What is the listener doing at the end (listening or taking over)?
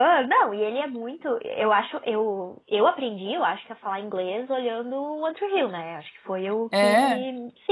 listening